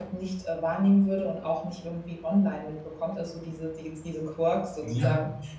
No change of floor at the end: Yes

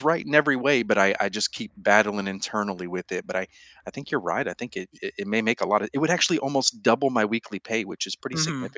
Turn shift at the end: Yes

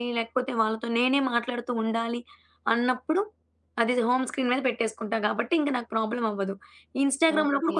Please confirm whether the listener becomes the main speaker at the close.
No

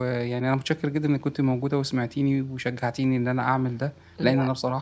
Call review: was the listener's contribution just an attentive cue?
Yes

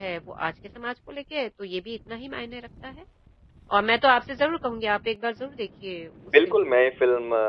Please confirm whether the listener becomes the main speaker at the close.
Yes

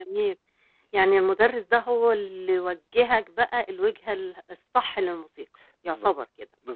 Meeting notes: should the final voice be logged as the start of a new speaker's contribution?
Yes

